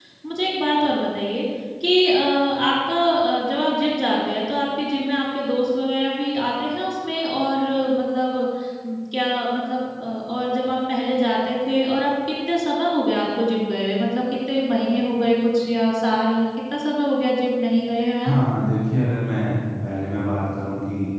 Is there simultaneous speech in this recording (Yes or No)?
No